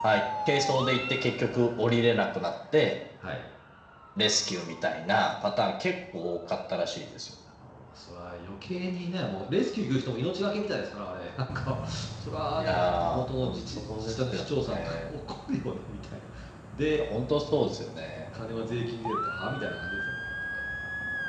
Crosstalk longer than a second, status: present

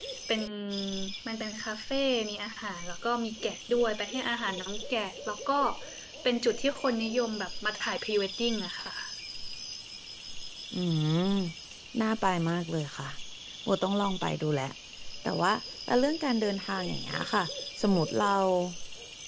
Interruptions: none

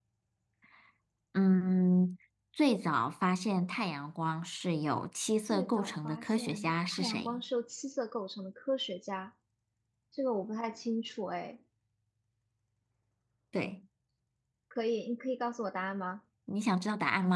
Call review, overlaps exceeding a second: present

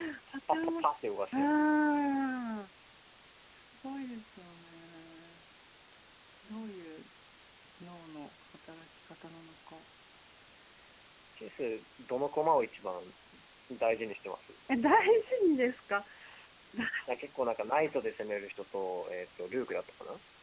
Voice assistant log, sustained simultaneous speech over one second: none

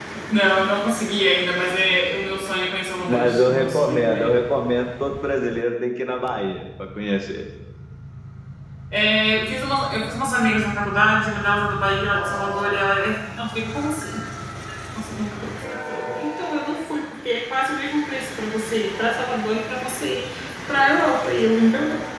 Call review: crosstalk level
present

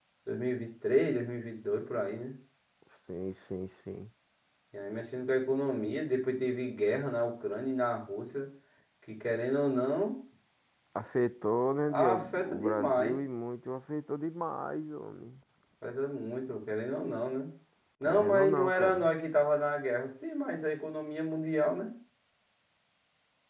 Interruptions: present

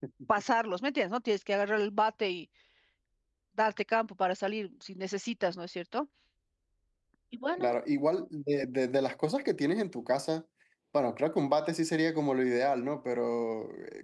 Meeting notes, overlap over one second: none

